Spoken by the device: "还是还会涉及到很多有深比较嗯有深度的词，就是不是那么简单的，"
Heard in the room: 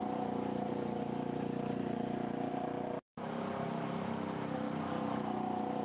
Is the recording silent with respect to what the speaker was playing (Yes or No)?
Yes